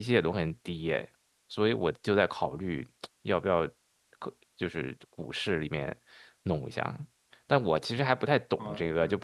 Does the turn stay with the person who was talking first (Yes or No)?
Yes